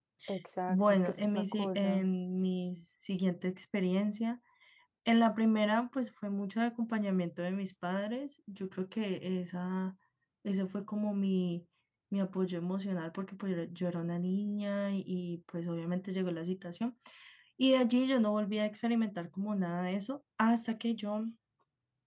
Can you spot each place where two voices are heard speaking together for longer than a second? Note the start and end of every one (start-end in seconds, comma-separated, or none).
0.7-2.0